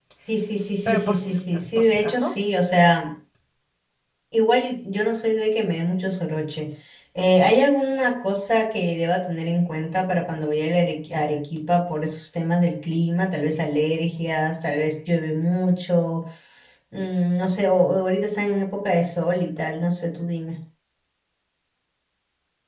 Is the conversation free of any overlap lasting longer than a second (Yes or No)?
No